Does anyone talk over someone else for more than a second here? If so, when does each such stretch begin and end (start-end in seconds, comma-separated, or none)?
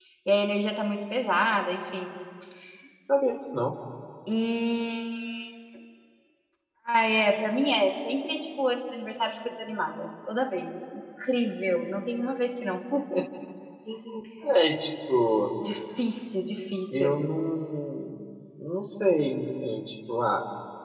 none